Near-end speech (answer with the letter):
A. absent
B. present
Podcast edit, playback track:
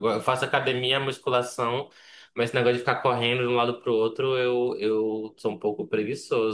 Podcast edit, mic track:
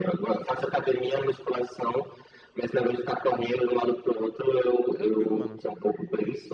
B